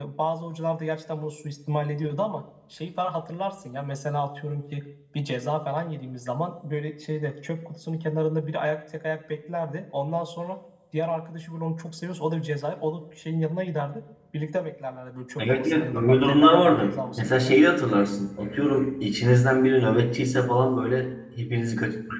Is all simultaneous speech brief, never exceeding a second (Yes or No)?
No